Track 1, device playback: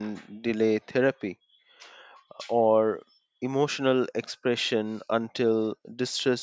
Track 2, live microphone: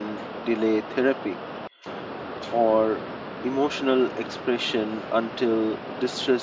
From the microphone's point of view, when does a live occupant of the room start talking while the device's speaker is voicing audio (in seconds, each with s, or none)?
none